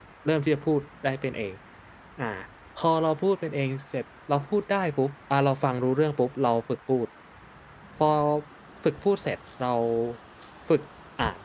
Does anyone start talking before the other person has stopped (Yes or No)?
No